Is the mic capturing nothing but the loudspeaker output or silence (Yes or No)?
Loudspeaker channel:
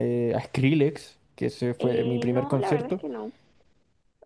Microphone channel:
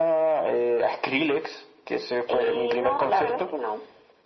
Yes